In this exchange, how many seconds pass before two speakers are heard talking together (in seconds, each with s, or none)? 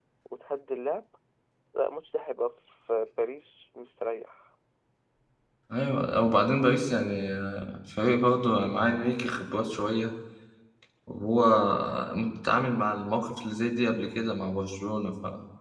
none